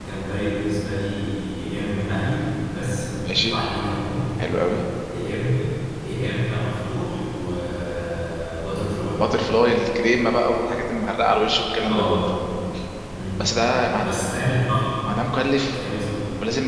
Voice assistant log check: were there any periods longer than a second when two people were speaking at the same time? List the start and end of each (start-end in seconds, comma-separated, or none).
none